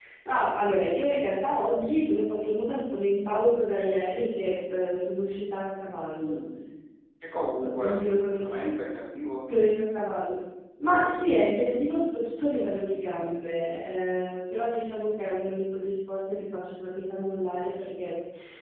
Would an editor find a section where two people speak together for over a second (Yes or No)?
No